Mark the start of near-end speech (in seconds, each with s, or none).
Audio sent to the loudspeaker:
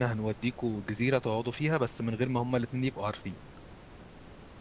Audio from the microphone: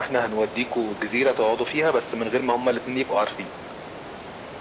none